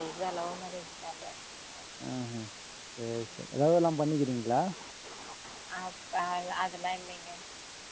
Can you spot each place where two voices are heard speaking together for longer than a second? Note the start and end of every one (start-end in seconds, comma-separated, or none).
none